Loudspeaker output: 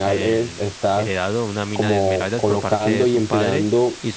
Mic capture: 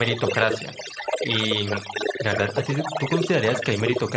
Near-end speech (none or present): present